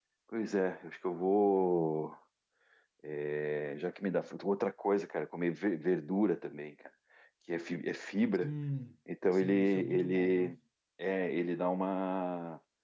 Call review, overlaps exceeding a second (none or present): present